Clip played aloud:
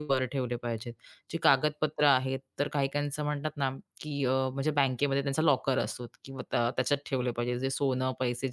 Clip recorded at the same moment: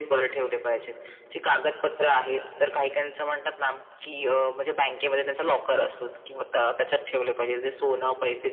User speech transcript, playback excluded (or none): none